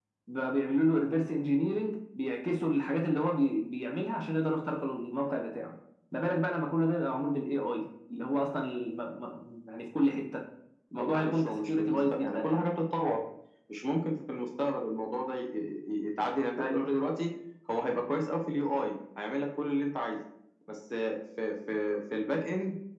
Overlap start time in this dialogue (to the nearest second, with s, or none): 11 s